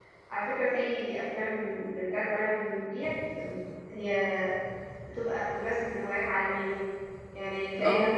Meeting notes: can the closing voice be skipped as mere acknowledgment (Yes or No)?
Yes